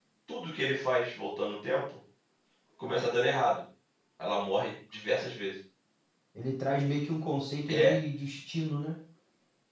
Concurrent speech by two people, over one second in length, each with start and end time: none

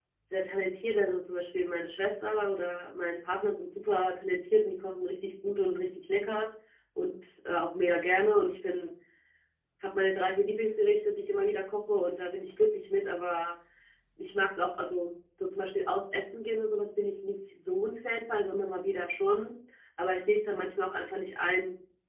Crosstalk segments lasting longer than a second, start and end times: none

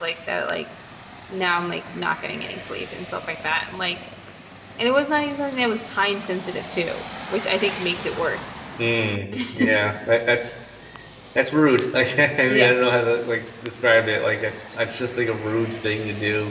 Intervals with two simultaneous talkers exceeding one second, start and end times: none

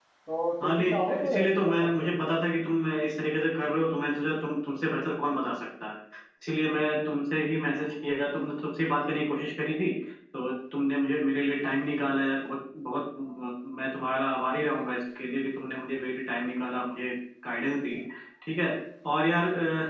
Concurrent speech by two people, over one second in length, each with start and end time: 0.6-2.1

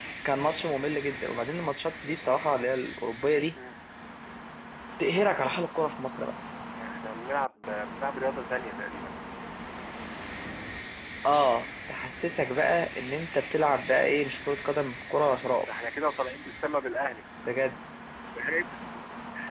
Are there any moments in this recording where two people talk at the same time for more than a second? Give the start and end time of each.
none

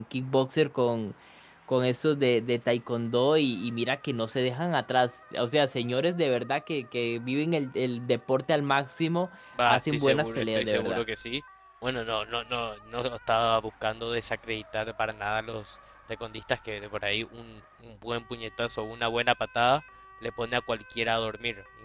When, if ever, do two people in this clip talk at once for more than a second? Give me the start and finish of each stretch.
9.7-11.0

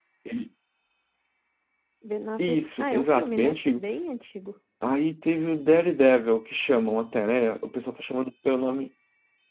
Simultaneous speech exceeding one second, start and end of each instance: 2.4-3.8

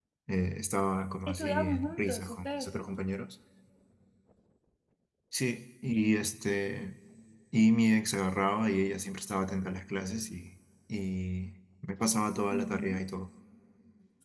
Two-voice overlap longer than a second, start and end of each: 1.3-2.7

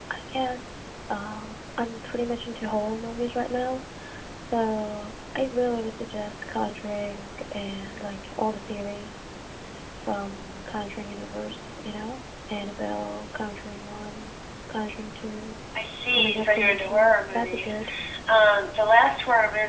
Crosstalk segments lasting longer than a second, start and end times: 16.1-17.8

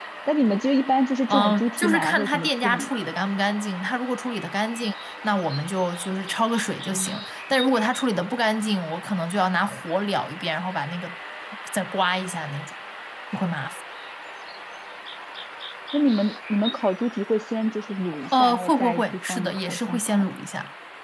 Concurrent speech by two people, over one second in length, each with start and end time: 1.3-2.9, 18.4-20.2

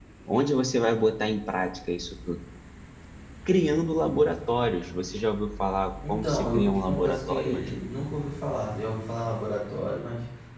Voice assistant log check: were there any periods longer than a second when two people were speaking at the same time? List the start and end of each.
6.1-7.8

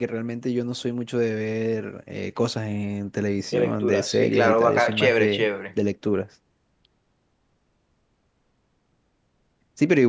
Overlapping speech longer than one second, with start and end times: 3.5-5.5

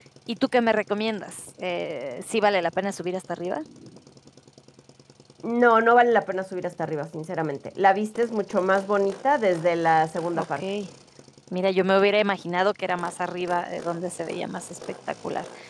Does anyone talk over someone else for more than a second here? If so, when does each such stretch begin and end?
none

